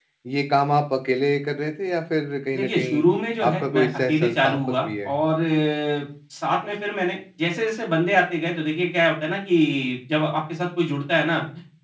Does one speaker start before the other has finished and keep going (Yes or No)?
Yes